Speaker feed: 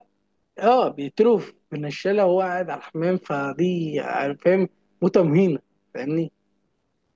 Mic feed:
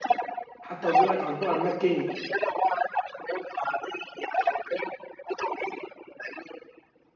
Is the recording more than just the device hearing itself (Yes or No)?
Yes